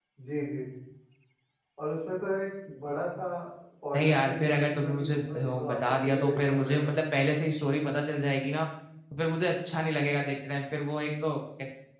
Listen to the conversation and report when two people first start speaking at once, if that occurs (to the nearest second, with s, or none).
4 s